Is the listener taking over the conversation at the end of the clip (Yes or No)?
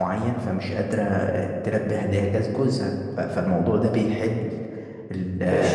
Yes